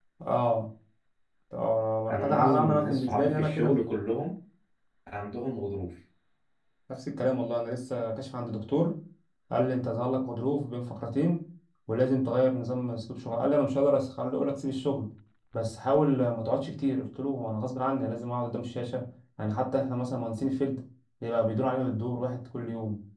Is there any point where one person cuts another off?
Yes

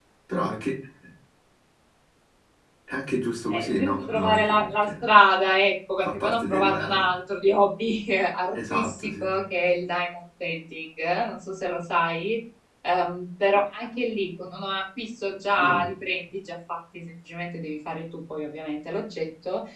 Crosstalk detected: Yes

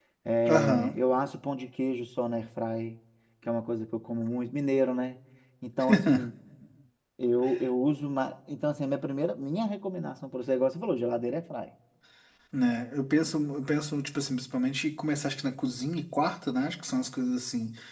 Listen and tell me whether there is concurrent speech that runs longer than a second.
No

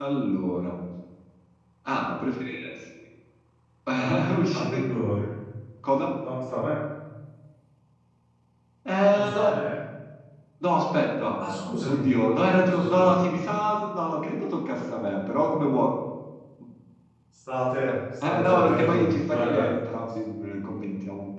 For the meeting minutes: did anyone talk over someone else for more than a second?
Yes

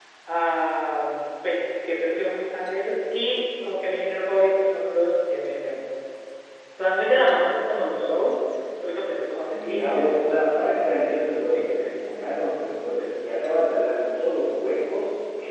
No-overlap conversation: No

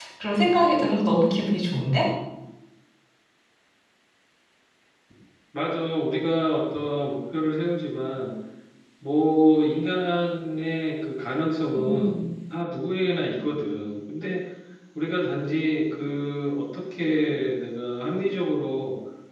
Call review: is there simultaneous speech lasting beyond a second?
No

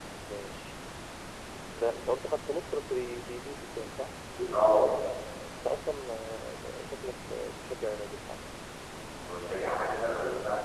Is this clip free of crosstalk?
Yes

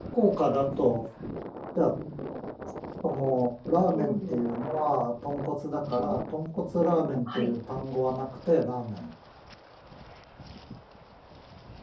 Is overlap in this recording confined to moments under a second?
Yes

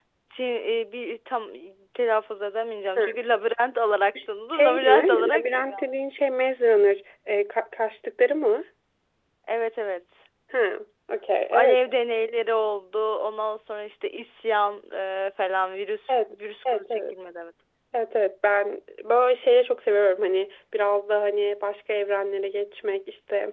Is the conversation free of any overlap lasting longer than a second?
No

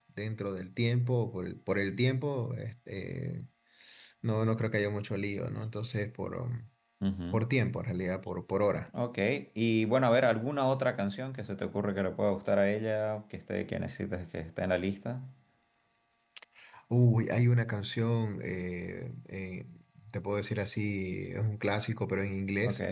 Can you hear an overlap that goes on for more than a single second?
No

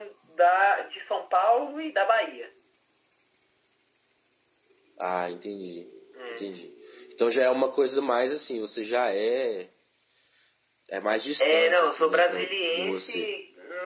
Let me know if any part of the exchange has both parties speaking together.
Yes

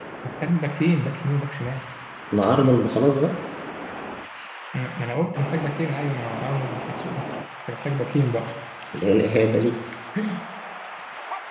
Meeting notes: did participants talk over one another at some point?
No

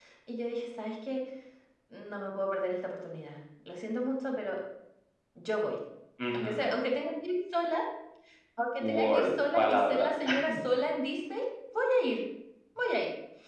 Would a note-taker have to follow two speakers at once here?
Yes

